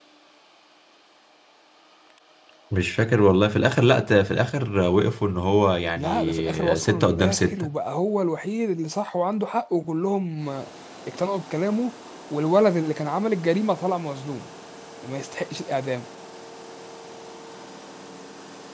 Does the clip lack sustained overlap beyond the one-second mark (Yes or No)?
No